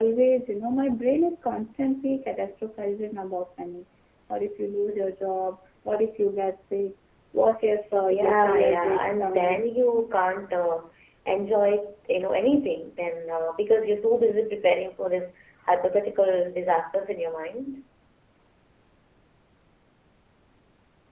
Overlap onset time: 8.1 s

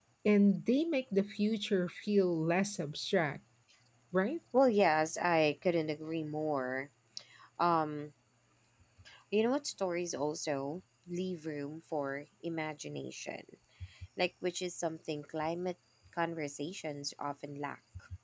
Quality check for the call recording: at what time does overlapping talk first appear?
none

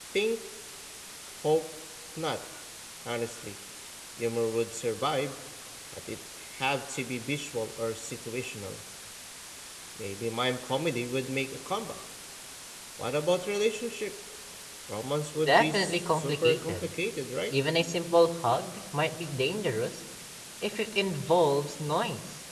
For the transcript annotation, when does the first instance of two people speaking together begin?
15.4 s

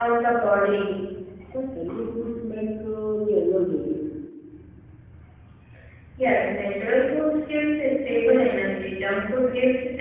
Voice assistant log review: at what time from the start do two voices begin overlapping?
none

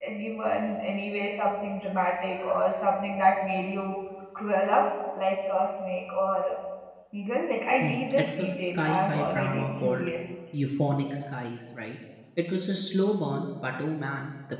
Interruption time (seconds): 7.8 s

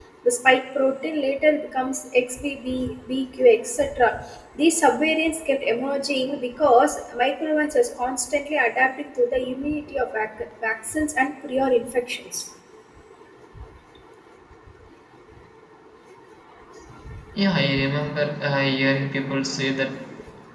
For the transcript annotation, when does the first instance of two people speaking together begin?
none

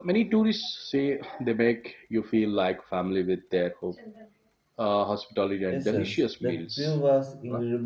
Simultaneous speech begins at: 5.7 s

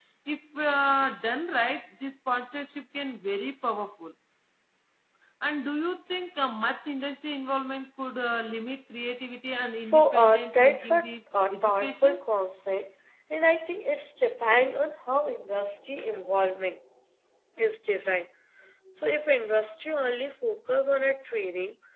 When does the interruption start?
9.8 s

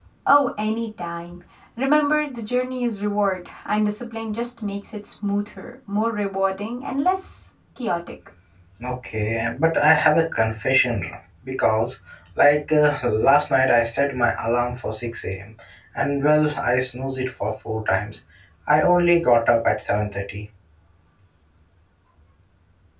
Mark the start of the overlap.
none

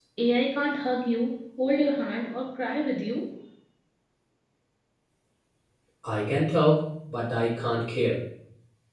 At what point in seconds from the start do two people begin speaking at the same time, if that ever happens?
none

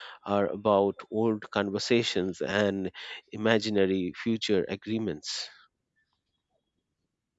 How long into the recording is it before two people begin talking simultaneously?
none

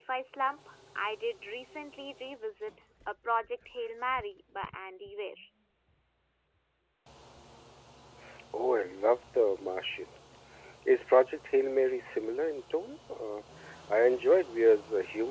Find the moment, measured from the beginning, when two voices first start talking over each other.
none

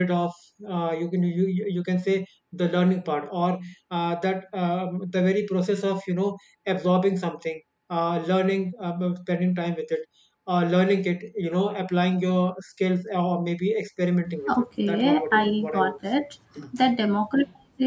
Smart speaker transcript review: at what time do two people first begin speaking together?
14.5 s

